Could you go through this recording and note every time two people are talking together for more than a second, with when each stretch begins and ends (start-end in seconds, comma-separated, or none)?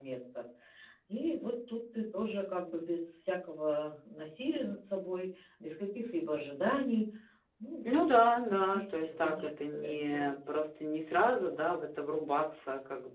8.5-10.3